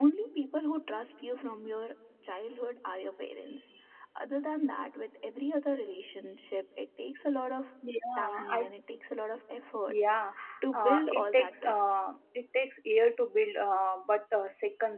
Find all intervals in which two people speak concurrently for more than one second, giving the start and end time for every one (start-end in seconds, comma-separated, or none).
10.7-11.9